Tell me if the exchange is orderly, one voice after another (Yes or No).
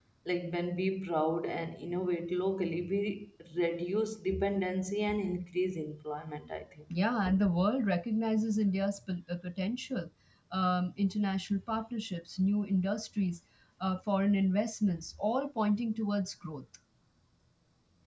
Yes